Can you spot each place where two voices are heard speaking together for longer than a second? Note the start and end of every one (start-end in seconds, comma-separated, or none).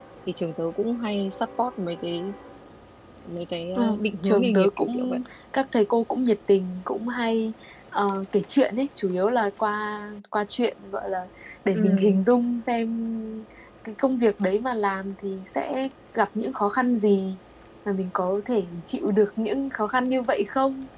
3.8-5.2